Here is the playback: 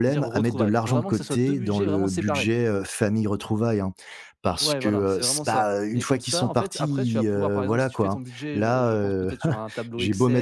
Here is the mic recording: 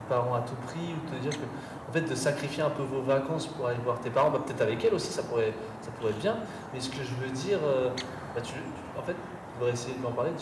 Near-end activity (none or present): present